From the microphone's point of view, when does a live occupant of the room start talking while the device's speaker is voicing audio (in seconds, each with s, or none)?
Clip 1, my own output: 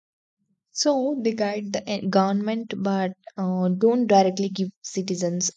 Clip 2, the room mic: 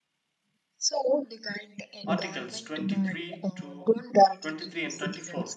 2.0 s